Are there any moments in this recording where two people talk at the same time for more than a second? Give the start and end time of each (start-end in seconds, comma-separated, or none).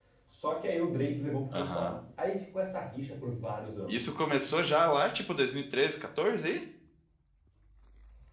none